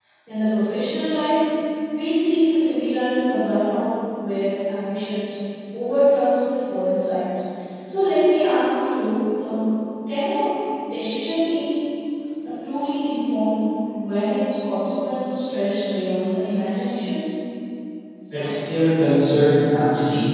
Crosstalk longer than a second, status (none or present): none